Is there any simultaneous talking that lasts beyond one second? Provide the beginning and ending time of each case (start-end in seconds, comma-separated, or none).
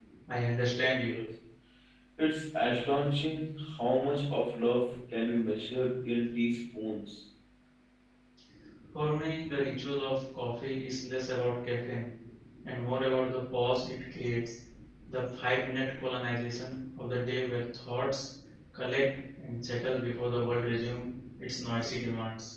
none